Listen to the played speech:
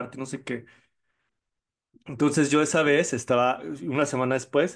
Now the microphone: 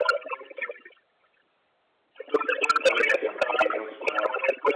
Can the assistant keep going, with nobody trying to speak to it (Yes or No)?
No